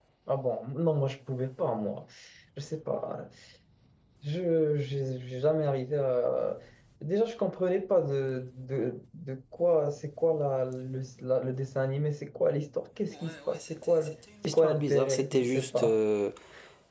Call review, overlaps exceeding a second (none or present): present